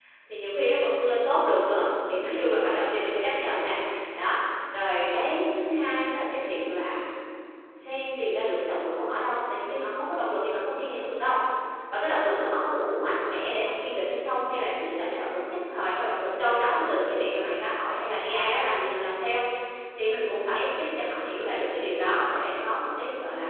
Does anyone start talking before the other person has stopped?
No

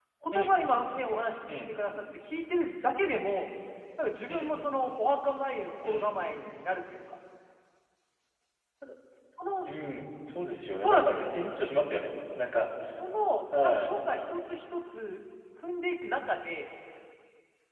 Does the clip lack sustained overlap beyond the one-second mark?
Yes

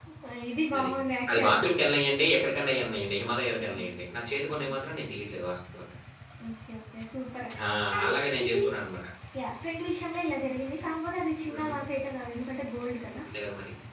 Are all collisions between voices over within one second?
Yes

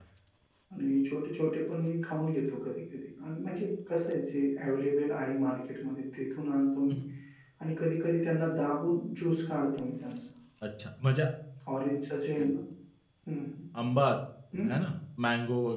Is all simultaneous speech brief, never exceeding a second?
Yes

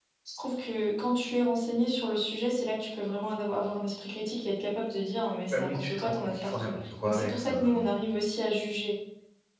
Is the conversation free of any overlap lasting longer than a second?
No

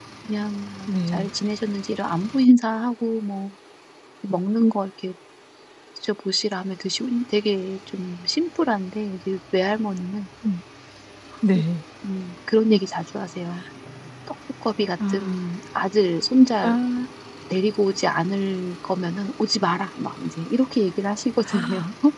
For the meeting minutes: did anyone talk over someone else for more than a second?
No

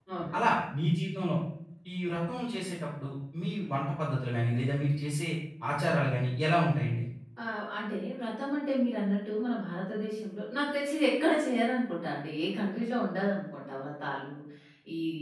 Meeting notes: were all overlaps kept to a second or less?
Yes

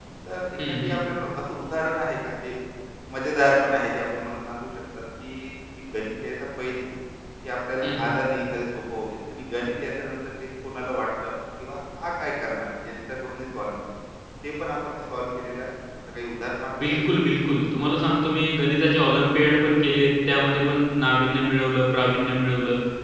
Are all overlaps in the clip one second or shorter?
Yes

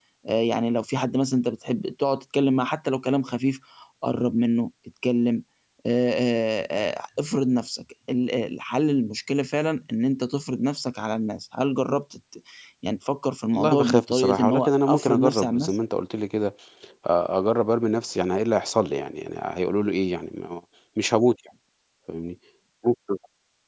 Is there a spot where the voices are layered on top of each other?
Yes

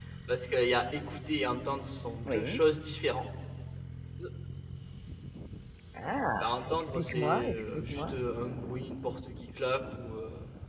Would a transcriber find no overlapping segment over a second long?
No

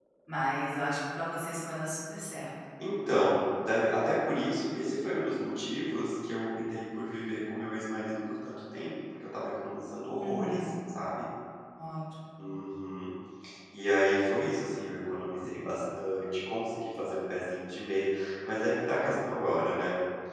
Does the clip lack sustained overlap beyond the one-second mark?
Yes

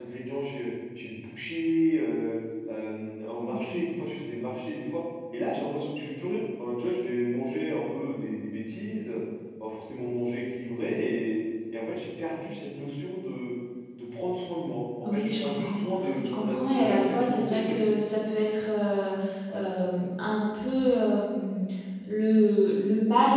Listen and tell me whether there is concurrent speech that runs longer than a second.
Yes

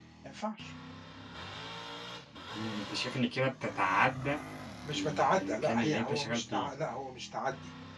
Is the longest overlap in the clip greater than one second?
Yes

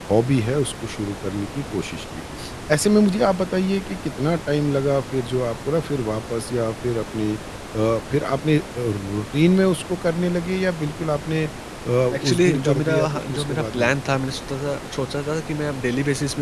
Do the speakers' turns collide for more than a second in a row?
Yes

